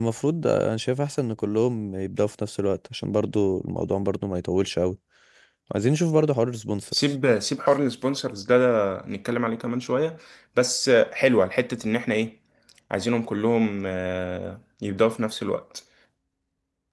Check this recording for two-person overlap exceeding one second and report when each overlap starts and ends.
none

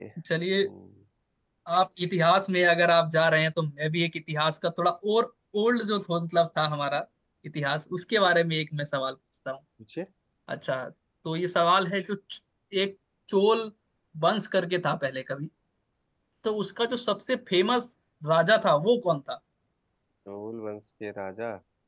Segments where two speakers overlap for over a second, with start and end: none

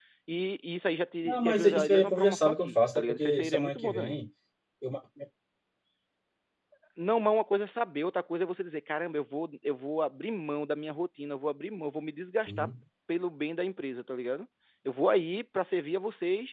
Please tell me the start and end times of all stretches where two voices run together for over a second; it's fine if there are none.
1.2-4.2

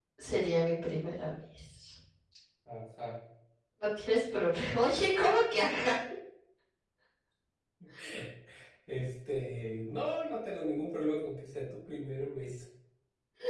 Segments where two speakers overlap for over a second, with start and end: none

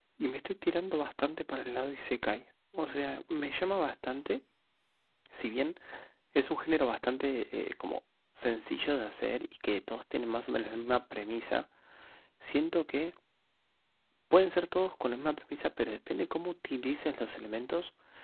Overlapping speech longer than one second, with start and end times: none

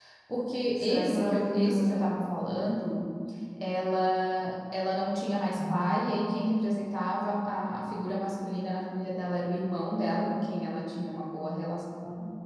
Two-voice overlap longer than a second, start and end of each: 0.8-2.2

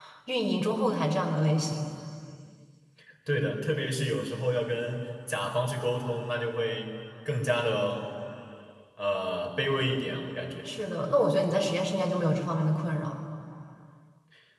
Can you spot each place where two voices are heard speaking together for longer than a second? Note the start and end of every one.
none

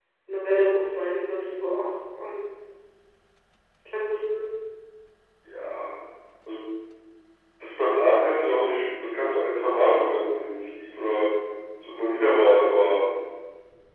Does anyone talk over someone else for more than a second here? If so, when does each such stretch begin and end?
none

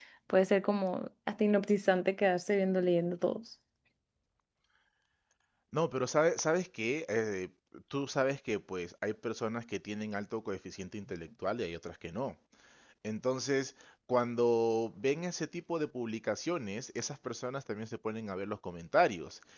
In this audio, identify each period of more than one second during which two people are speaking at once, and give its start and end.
none

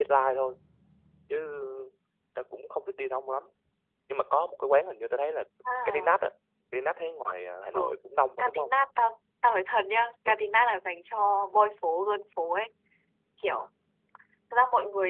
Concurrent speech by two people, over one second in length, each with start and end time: none

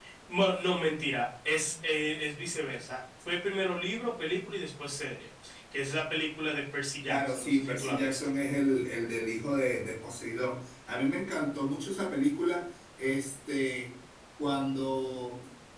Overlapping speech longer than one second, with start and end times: 7.1-8.3

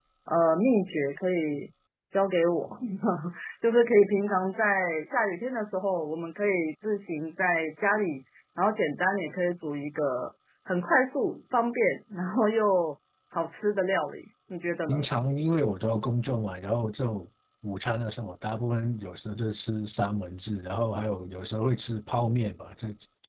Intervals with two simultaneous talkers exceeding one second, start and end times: none

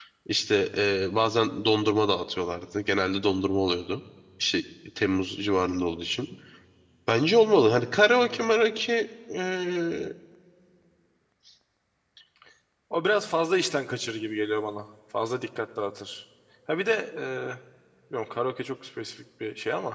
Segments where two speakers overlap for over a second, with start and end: none

